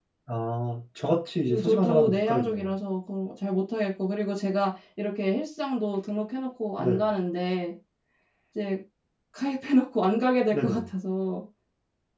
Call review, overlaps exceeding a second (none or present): present